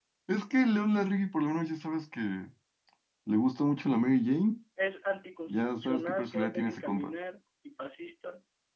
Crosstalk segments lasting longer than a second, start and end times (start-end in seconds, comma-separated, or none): 5.5-7.1